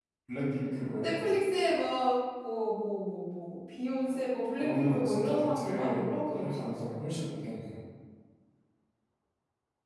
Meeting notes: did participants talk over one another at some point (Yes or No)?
Yes